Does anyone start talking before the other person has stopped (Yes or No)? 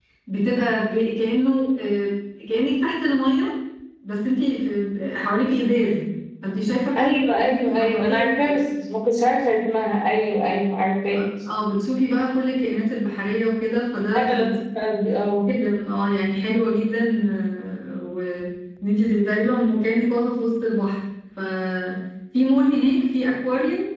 Yes